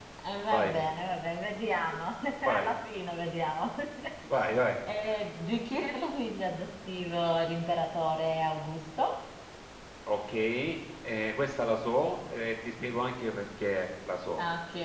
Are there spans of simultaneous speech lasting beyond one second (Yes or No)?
No